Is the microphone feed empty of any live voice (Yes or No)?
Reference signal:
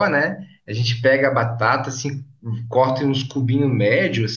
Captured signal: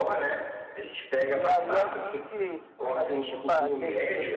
No